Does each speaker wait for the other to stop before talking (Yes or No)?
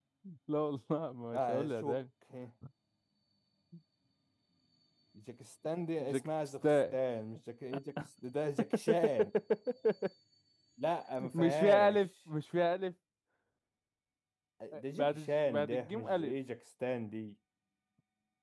No